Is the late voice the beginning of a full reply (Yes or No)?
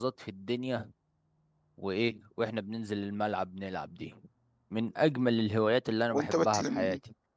Yes